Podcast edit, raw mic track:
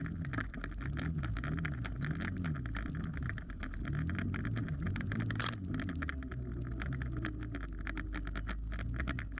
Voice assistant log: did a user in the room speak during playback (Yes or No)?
No